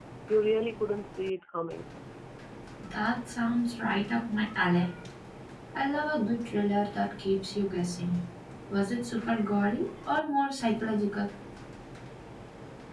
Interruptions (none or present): none